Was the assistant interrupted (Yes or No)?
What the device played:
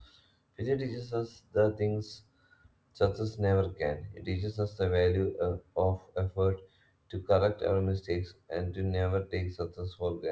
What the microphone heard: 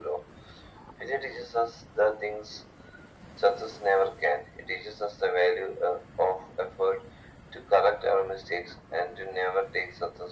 No